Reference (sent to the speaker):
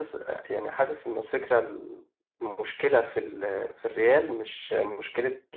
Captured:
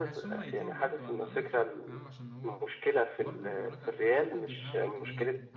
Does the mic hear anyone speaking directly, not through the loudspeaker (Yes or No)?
Yes